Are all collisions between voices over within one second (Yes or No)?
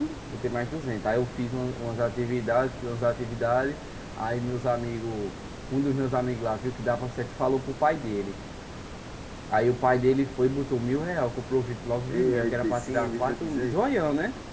No